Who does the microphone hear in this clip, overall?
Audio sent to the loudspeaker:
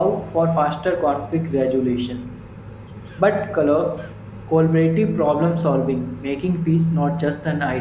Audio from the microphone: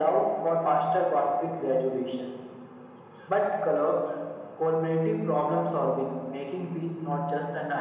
echo only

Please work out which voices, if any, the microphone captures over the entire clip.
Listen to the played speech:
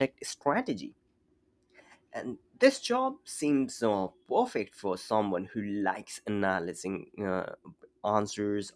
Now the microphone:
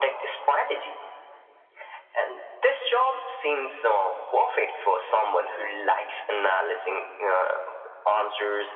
echo only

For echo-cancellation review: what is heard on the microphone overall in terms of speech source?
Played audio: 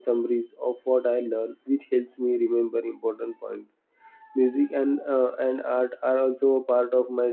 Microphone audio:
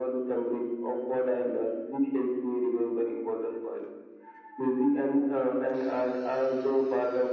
echo only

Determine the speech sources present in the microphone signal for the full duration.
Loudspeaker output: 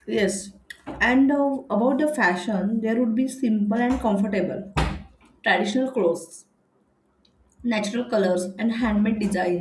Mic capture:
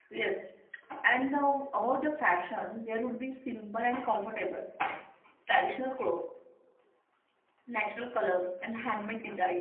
echo only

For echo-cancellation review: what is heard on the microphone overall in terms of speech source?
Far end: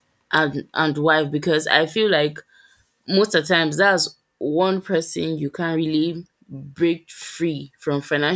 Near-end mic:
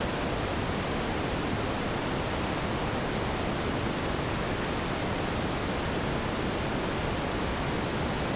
neither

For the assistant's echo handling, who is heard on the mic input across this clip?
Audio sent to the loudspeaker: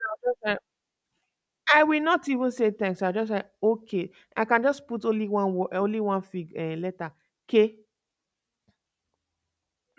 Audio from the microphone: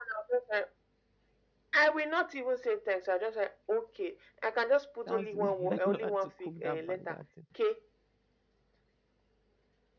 both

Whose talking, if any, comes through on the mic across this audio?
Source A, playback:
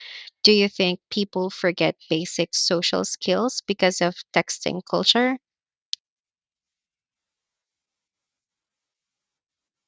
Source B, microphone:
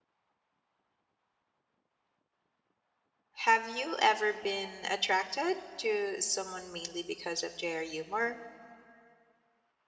user only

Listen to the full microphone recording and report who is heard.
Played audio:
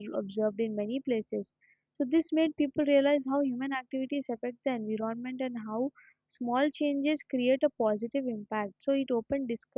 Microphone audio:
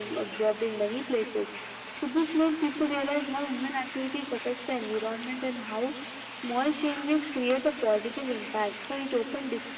echo only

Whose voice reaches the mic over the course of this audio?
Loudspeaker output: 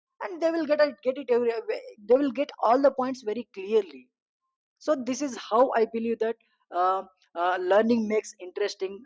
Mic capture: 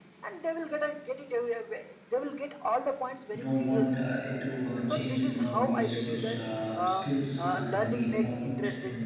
both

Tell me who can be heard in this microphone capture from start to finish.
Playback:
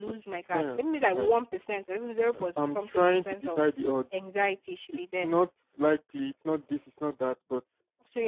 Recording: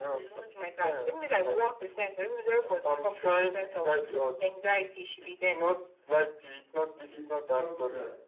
both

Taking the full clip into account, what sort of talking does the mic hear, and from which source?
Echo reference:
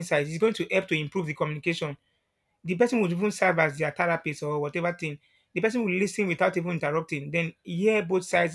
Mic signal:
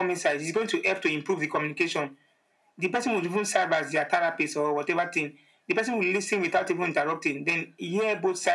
echo only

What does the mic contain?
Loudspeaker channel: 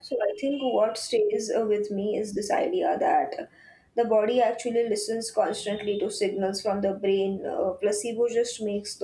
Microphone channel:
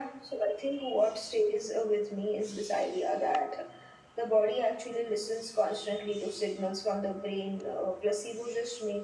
echo only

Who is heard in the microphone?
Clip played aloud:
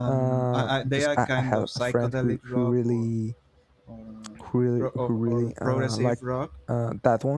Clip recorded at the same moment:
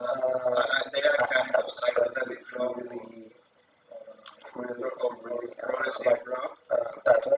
echo only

